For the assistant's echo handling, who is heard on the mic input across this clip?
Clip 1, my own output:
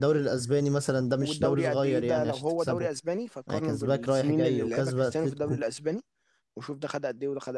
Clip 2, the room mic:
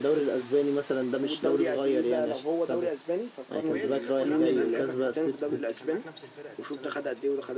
both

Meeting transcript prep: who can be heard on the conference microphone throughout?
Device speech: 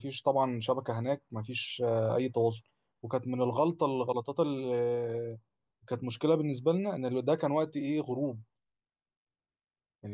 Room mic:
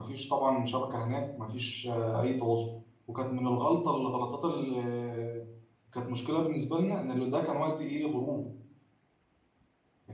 echo only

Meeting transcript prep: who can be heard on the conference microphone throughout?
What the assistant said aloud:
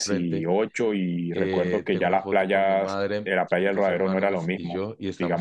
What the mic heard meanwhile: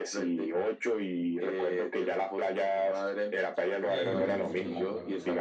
both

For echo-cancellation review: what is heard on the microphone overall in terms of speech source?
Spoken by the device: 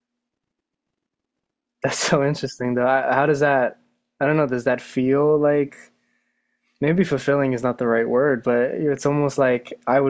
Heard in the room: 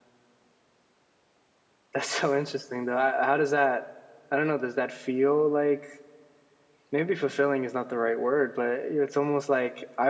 echo only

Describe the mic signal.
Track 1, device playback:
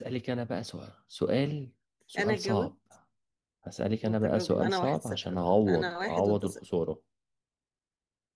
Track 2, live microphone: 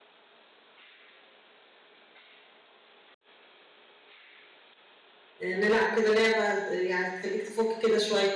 user only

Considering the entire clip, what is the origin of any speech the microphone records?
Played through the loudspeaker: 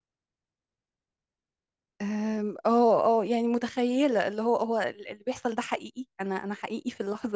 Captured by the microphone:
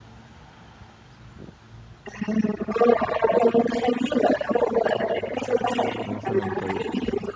both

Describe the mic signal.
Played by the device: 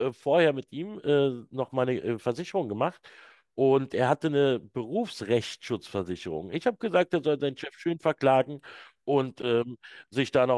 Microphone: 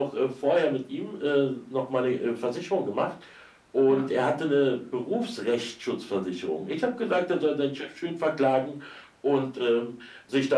both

